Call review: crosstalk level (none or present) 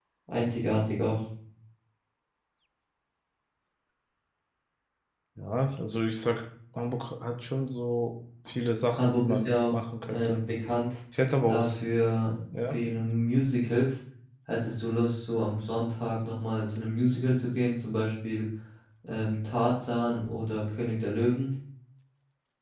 present